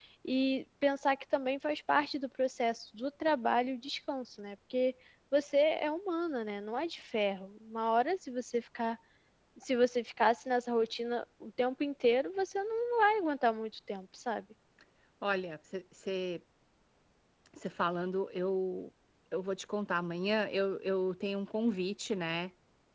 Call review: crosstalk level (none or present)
none